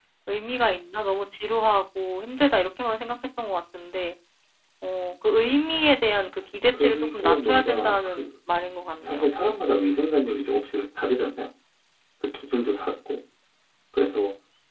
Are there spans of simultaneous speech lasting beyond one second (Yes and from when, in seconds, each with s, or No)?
Yes, from 6.7 s